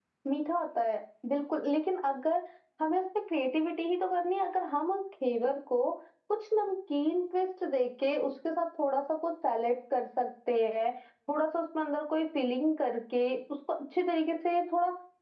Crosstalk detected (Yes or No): No